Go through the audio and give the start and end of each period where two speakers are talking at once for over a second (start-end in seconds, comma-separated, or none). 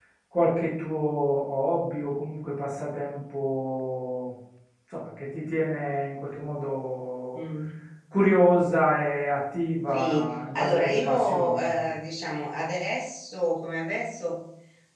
9.9-11.9